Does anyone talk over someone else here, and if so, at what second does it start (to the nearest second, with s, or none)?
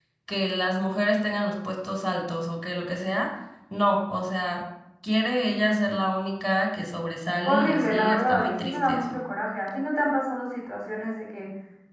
7 s